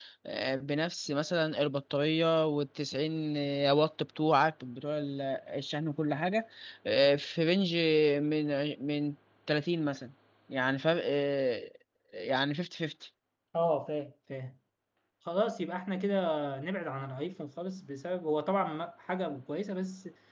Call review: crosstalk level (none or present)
none